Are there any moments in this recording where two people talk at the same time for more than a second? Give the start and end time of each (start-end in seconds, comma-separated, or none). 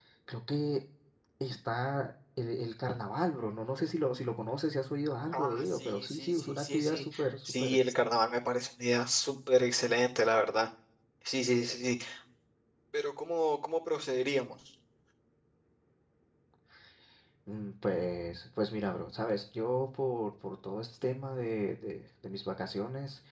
5.3-7.0